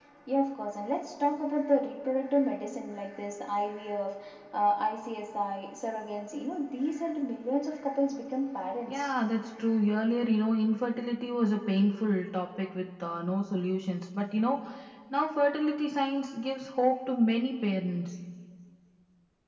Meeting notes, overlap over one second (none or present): none